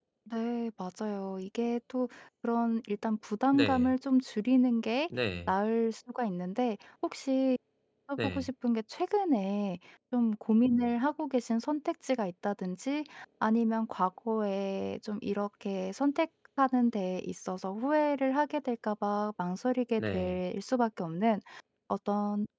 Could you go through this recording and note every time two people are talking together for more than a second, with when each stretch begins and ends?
none

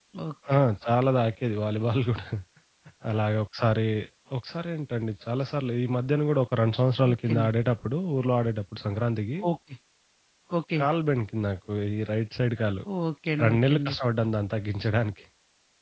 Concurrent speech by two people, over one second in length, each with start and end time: none

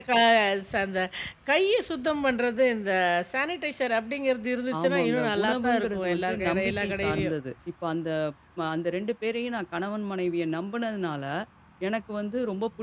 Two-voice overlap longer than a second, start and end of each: 4.8-7.3

